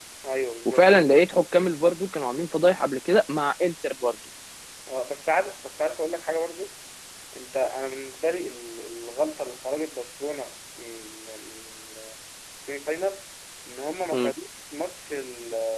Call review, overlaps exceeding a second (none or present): none